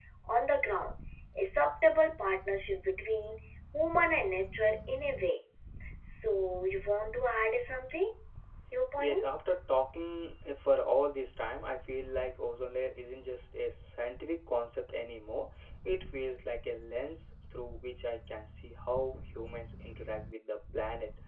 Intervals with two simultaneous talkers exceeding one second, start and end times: none

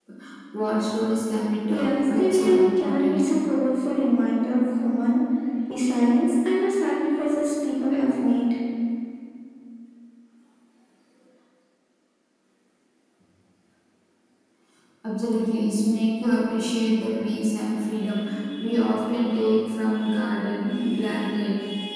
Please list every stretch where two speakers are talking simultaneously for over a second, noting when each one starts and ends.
1.7-3.2

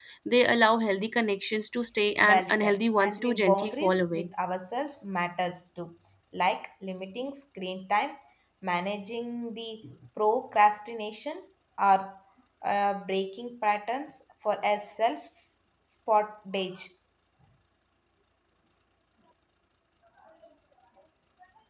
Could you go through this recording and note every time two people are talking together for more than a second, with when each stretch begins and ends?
2.2-4.3

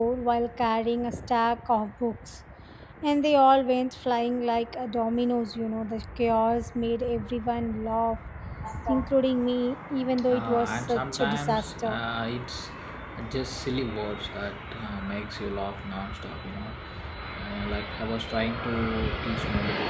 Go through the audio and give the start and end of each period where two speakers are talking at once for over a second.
10.3-12.0

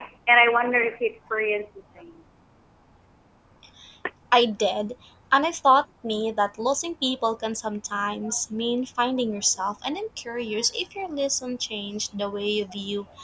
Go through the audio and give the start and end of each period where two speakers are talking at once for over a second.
none

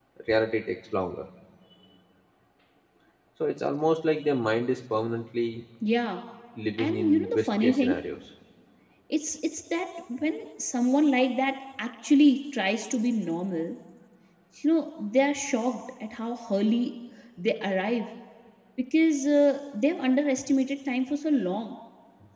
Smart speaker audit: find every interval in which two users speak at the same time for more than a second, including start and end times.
6.8-8.0

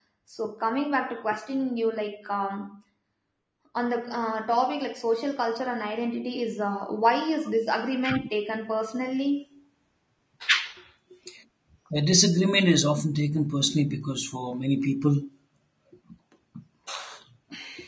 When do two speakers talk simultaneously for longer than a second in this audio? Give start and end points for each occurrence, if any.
none

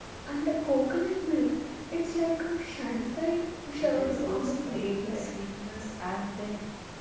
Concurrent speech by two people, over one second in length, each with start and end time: 3.8-5.0

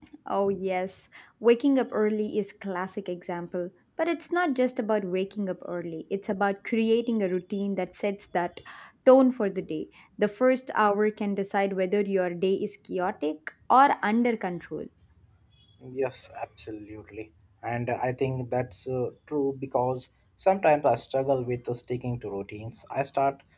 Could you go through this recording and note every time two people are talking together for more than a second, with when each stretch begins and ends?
none

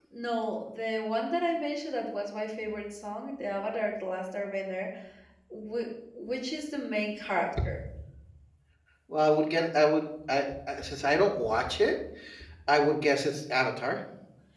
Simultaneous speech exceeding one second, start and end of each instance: none

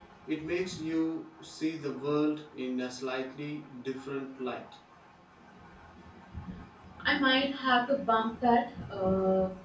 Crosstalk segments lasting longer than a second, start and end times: none

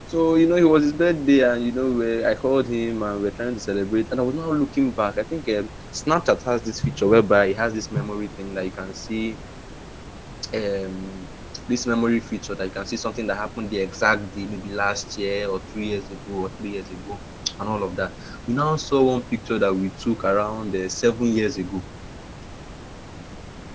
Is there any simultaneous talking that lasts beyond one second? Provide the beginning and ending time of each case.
none

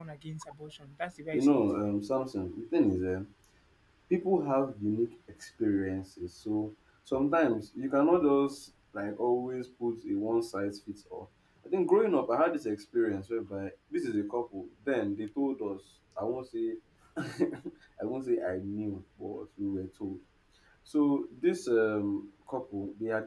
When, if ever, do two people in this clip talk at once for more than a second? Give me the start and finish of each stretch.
none

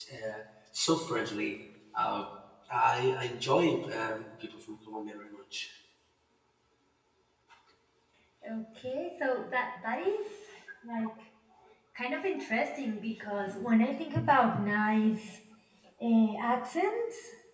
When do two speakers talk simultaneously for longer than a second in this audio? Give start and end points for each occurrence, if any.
none

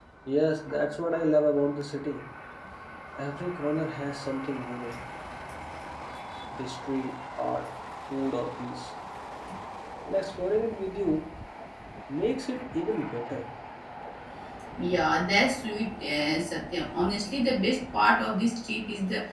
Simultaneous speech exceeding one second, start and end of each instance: none

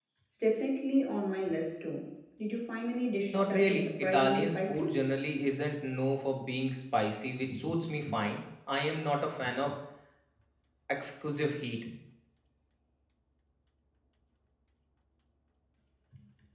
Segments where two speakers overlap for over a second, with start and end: 3.3-4.9

